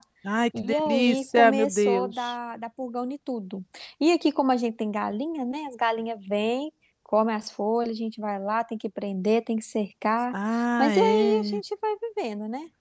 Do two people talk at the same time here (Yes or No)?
Yes